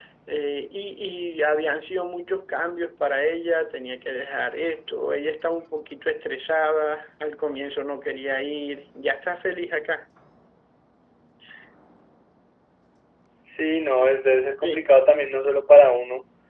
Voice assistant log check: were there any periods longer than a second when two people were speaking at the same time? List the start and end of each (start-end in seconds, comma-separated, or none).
none